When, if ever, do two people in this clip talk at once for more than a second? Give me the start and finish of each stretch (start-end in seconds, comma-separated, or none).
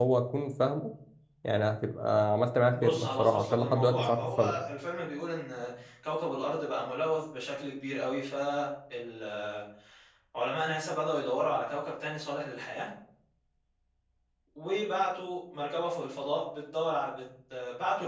2.7-4.6